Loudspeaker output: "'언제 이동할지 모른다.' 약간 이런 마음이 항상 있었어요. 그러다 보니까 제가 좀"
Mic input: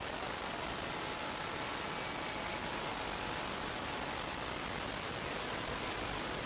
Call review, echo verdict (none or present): none